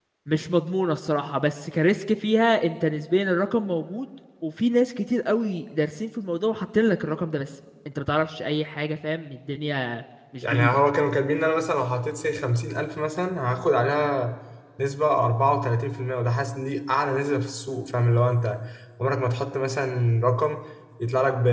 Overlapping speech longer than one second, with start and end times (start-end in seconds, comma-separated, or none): none